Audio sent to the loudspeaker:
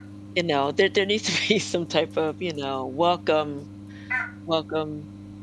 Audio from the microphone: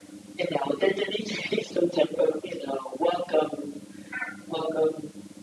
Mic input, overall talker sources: echo only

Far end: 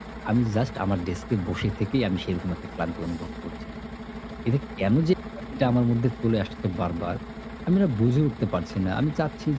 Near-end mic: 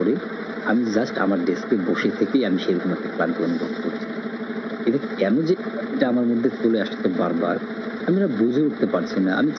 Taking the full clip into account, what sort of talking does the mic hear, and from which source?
echo only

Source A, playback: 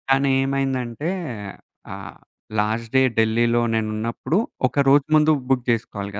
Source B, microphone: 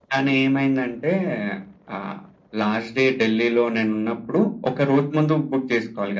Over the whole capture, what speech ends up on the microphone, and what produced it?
echo only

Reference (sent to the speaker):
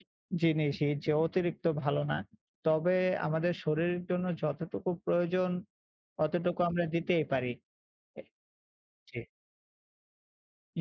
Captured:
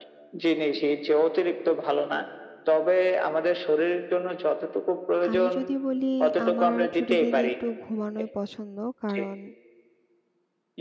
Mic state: both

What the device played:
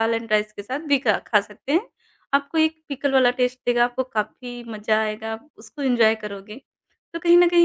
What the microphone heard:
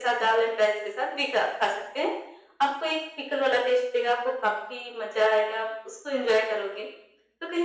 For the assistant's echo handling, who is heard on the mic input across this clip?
echo only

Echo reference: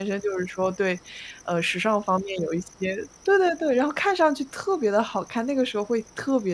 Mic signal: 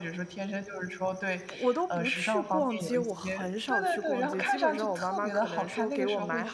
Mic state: both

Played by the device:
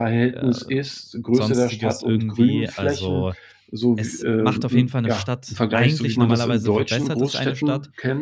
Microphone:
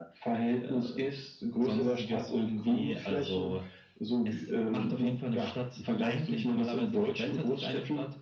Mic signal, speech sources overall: echo only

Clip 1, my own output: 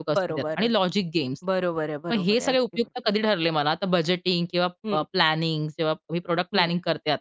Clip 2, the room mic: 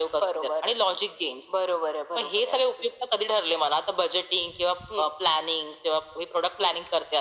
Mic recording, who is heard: echo only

